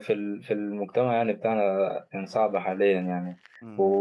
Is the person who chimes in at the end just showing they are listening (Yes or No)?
Yes